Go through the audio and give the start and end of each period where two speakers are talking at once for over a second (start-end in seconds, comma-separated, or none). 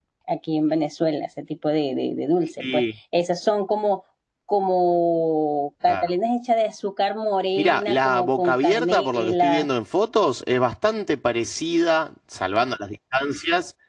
7.6-9.7